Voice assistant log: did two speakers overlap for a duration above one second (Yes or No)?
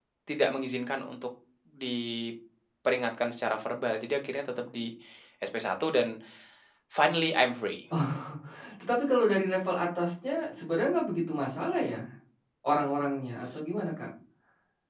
No